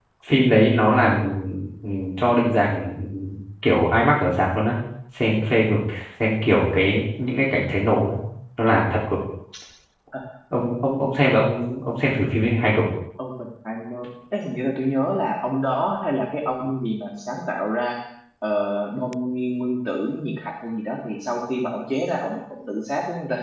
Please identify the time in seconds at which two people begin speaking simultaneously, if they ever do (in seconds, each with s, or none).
none